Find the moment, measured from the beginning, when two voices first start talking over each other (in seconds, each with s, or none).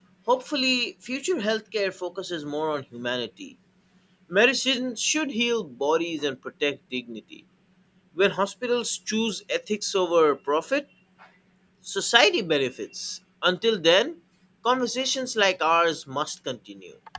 none